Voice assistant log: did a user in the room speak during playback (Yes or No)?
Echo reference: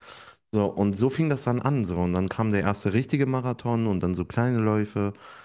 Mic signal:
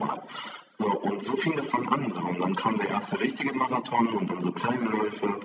No